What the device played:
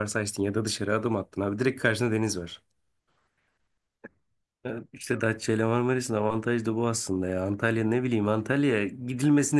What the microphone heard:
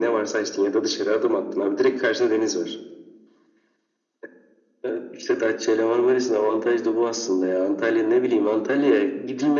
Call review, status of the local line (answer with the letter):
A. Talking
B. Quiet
B